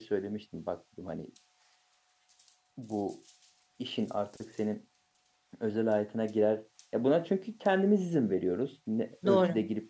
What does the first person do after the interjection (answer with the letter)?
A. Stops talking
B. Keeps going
B